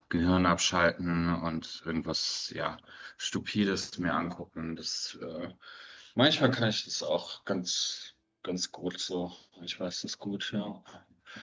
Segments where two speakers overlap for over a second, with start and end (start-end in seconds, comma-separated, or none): none